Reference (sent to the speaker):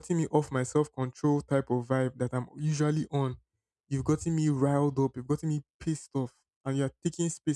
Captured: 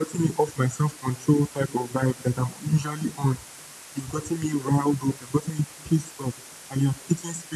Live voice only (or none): none